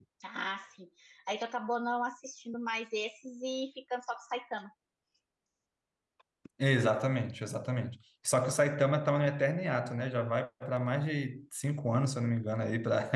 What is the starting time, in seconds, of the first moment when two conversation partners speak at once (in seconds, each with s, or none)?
none